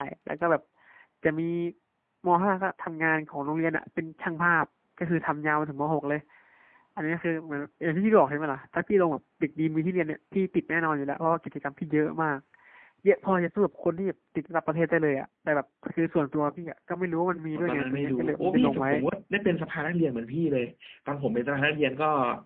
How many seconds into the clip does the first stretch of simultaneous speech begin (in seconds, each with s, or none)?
17.6 s